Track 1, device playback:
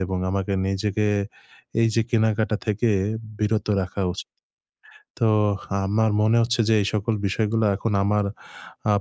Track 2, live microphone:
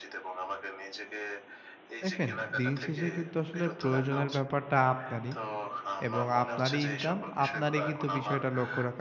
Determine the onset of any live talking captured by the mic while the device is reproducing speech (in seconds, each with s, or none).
2.0 s